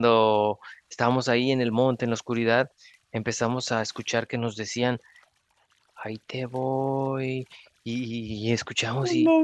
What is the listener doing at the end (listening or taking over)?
listening